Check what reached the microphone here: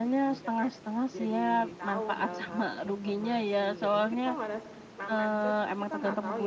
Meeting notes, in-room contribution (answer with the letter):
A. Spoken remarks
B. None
A